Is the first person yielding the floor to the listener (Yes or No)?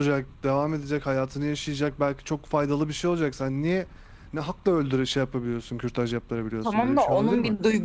Yes